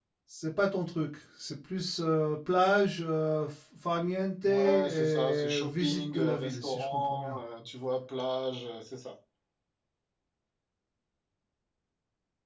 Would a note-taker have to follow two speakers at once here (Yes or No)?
Yes